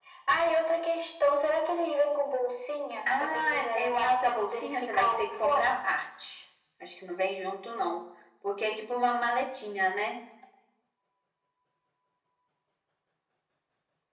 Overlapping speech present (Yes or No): Yes